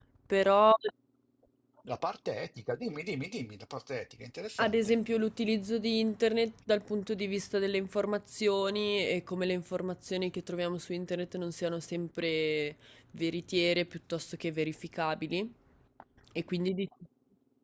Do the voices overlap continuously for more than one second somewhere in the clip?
No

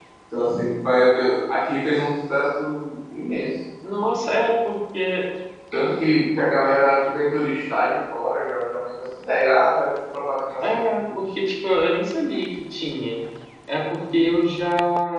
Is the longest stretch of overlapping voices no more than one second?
Yes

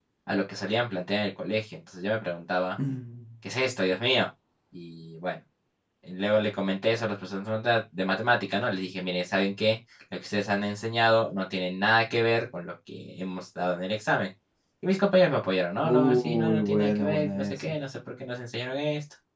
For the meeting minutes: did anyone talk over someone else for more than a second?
Yes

